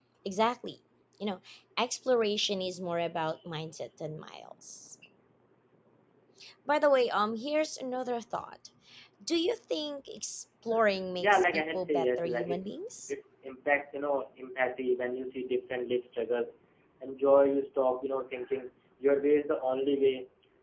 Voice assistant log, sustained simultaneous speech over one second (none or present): present